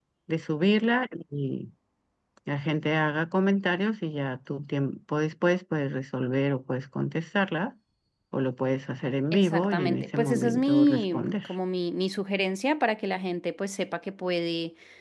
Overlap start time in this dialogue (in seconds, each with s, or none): 9.3 s